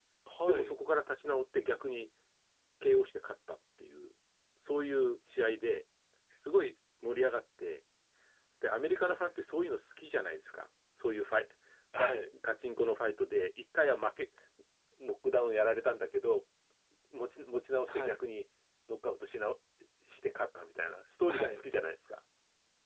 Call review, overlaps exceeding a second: none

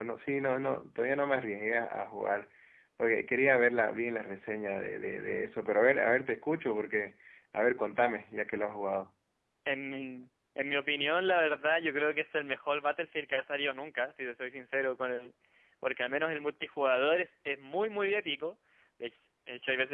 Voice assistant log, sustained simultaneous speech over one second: none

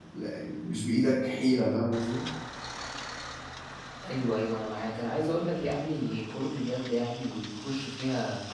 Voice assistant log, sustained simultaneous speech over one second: none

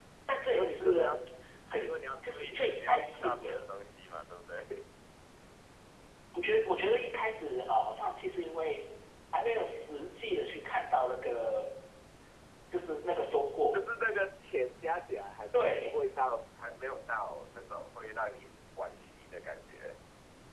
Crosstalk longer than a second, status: present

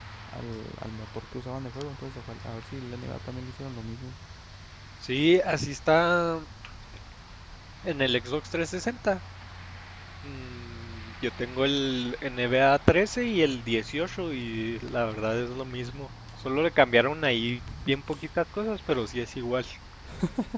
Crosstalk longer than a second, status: none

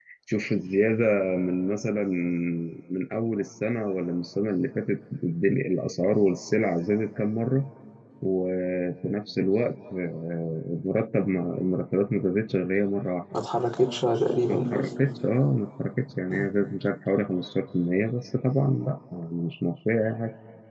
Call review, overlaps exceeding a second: none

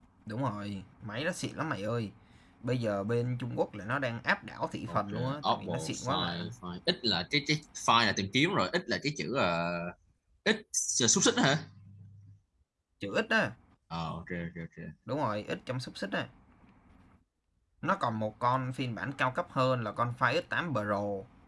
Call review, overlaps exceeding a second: present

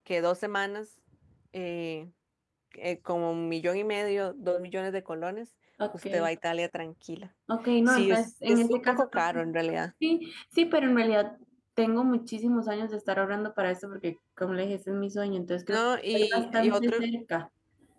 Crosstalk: present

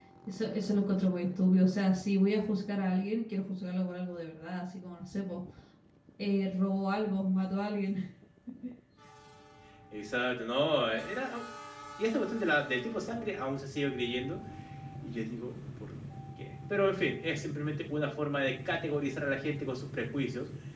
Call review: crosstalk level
none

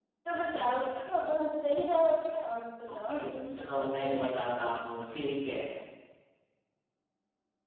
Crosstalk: present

